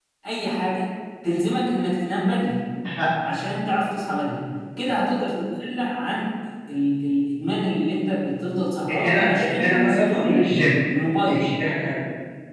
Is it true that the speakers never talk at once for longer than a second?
No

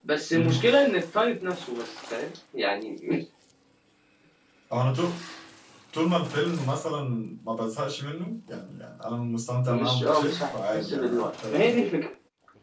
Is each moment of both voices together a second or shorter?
No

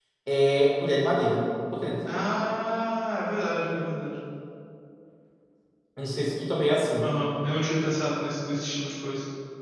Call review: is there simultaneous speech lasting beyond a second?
No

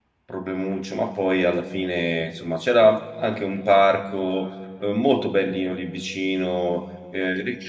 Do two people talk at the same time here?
No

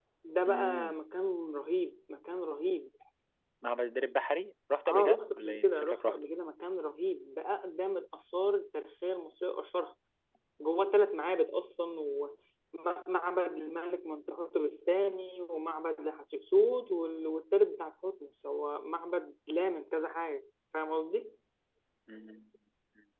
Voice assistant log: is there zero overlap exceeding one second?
No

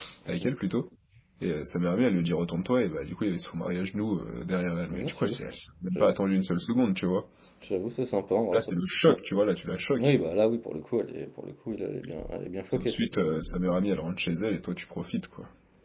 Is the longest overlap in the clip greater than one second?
No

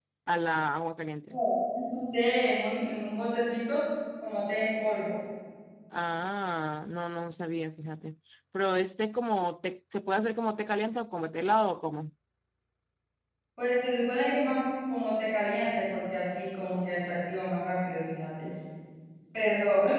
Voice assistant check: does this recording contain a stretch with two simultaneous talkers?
No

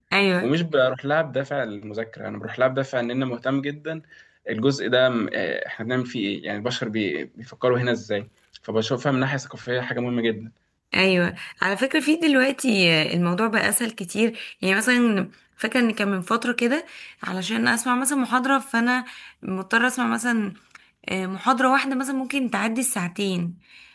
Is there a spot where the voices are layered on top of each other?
No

